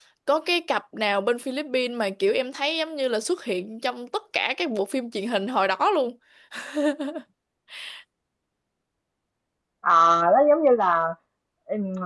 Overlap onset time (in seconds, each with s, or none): none